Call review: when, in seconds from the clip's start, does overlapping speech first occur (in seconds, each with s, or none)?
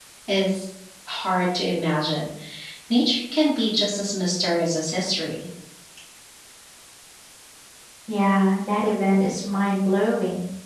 none